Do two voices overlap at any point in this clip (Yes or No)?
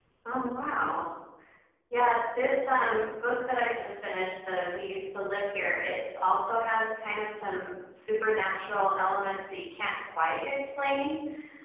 No